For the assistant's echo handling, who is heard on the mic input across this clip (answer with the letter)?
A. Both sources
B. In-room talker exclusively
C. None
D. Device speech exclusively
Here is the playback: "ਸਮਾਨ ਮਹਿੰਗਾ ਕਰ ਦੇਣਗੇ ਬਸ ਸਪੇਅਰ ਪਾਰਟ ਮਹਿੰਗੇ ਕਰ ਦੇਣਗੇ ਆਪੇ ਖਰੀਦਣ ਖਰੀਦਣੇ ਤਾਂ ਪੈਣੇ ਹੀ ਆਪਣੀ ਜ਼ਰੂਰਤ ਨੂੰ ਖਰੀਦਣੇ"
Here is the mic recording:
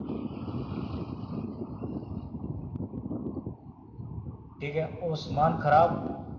B